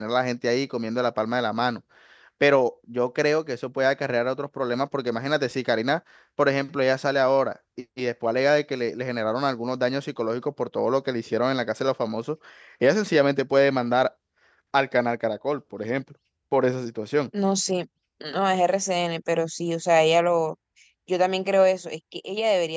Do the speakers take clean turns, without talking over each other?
Yes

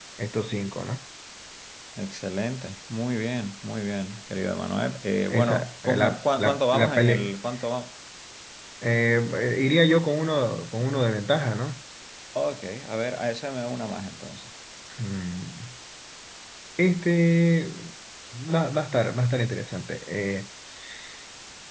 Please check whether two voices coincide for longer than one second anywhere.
Yes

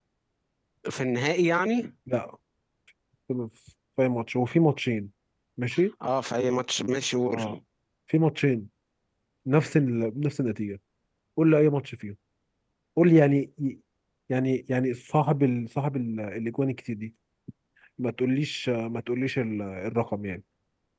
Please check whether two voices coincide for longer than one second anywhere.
No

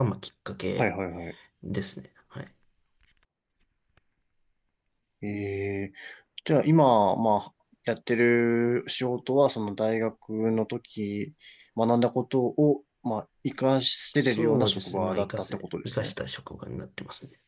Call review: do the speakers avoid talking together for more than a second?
No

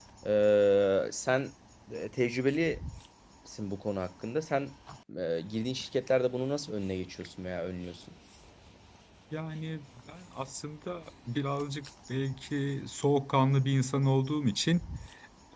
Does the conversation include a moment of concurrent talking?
No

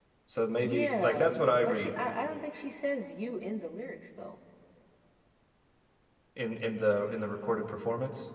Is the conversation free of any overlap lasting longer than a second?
No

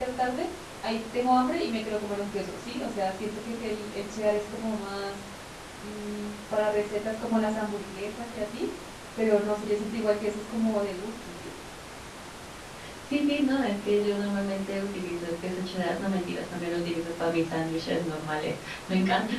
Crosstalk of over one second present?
No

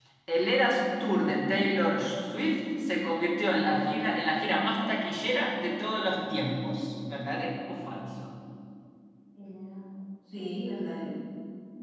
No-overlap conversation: Yes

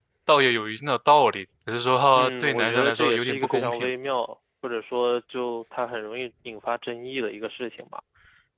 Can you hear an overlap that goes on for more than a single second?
Yes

